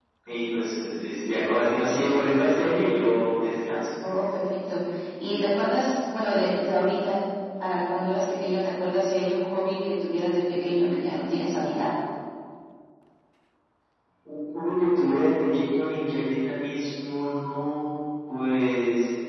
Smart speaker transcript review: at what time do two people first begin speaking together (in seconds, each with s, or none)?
none